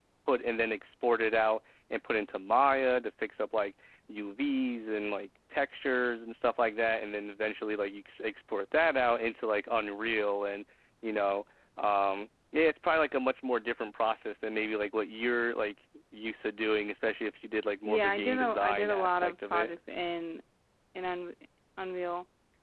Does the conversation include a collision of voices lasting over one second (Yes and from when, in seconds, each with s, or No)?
Yes, from 17.8 s